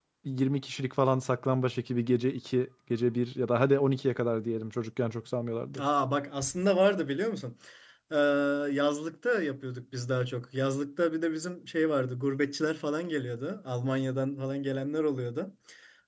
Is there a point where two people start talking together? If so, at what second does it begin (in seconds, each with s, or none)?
none